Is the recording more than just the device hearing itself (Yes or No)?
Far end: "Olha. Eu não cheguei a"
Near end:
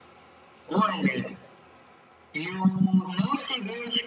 No